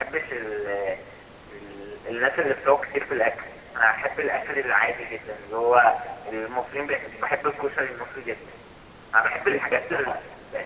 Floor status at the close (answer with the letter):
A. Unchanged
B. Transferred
A